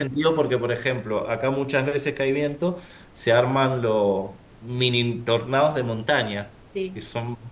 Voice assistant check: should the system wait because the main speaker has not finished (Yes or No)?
Yes